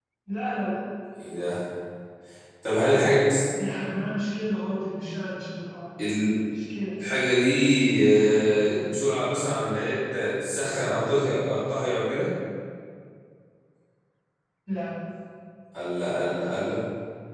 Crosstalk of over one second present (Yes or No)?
No